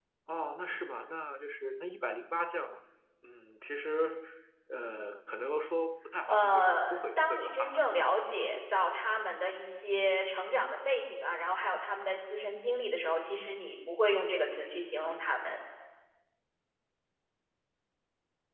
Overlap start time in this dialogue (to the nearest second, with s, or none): 6 s